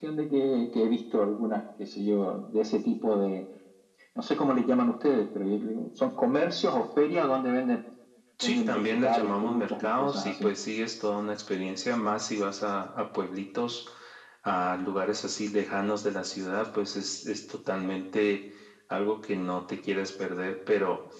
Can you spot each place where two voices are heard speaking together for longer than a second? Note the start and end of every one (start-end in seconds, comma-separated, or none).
8.4-10.5